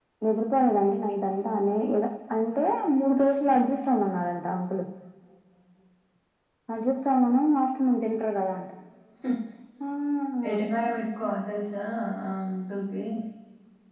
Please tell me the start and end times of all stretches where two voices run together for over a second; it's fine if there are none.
none

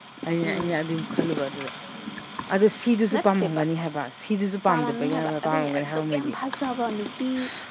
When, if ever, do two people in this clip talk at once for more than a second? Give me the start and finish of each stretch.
4.7-6.4

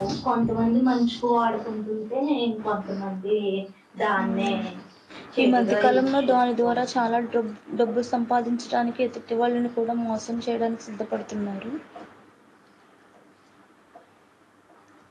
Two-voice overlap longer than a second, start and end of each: 5.4-7.3

